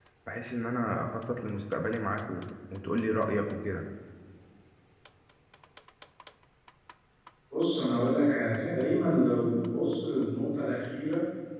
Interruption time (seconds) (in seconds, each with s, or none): none